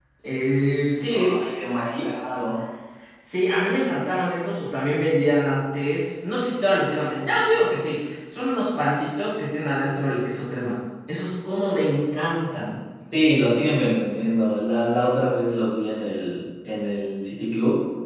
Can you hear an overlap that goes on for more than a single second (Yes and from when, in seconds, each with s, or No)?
No